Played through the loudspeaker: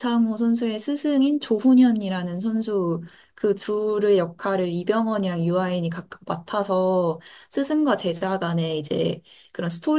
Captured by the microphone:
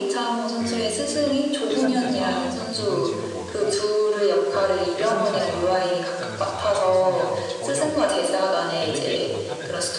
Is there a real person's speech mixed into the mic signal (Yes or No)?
Yes